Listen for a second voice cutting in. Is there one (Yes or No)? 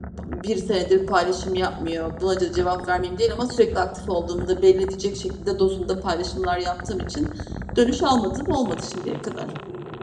No